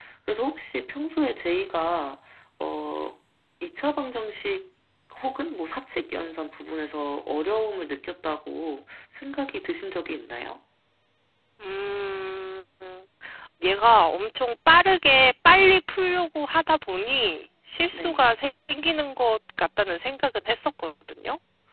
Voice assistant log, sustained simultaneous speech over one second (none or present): none